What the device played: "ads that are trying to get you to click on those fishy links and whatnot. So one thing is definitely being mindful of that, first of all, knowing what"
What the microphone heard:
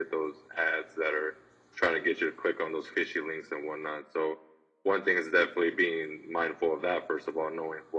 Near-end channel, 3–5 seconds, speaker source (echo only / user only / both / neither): echo only